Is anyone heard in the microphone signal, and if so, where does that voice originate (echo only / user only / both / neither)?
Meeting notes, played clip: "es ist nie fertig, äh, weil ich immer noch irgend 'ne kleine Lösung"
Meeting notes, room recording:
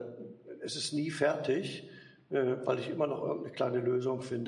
echo only